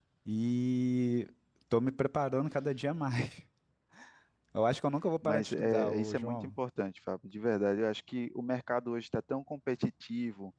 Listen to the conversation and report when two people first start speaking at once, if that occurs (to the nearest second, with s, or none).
5 s